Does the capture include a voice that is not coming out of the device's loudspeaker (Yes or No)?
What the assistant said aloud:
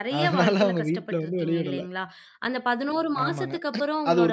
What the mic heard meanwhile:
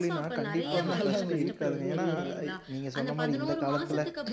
Yes